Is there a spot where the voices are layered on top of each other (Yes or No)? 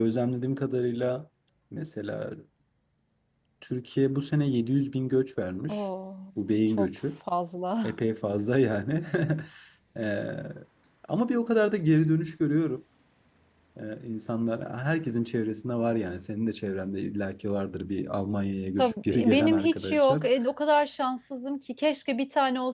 Yes